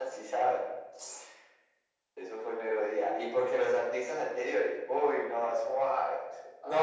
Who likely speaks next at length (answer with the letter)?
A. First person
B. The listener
B